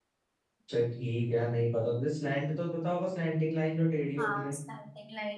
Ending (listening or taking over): taking over